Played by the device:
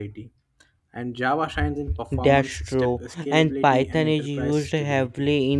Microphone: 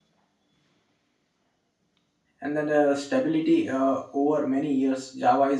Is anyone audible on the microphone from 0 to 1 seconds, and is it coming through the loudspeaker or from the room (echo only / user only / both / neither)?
neither